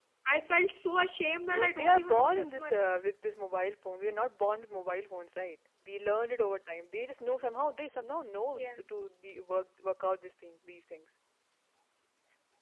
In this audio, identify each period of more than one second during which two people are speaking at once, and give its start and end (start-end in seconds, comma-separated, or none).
1.5-2.8